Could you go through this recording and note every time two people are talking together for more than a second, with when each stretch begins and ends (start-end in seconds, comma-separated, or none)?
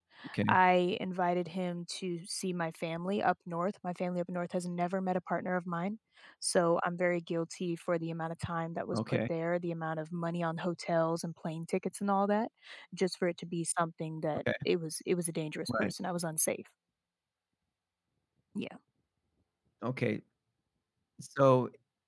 none